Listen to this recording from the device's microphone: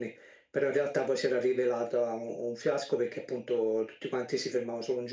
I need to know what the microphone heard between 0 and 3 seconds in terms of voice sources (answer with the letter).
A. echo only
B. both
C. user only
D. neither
A